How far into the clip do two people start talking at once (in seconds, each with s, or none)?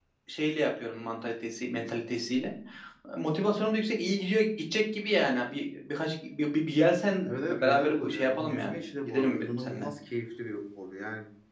7.2 s